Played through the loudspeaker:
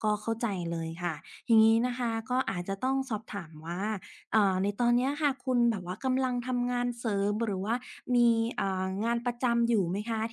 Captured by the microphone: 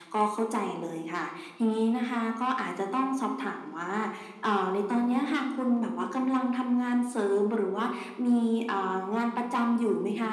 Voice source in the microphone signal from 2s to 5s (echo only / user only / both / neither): echo only